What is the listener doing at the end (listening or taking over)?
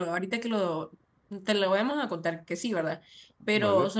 listening